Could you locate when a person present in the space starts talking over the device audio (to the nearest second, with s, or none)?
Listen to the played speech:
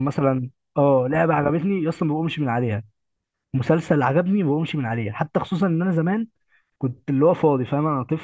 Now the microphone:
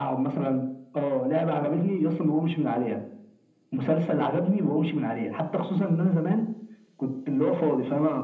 none